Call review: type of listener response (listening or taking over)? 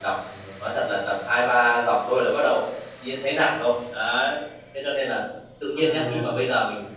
listening